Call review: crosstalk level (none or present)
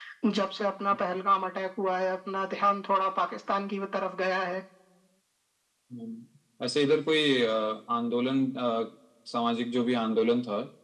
none